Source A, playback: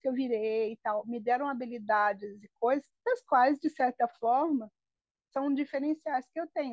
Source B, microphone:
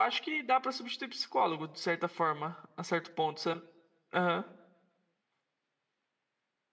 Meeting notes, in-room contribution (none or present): present